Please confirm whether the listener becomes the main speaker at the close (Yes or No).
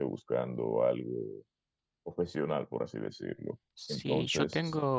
Yes